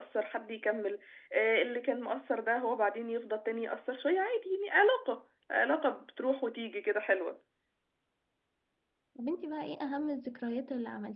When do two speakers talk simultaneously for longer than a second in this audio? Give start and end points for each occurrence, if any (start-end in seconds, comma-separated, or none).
none